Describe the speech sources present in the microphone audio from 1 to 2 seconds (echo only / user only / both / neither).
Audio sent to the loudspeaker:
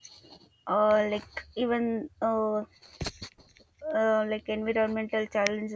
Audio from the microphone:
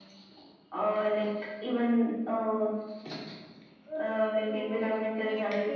echo only